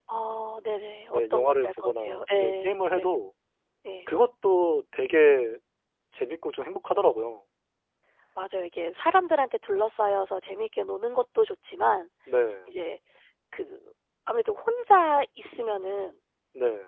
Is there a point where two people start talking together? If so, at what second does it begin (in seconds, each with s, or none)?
1.1 s